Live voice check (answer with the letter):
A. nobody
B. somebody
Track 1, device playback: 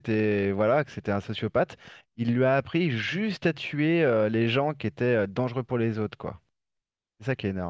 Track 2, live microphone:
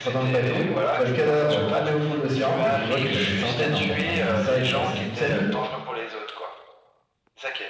B